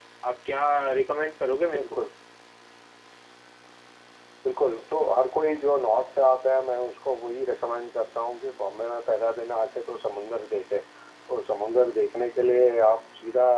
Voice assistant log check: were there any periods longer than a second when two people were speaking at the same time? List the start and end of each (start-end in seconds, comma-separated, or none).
none